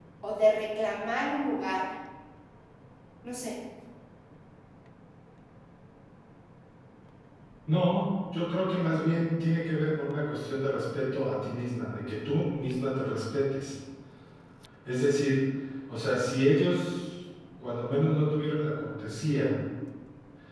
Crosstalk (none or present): none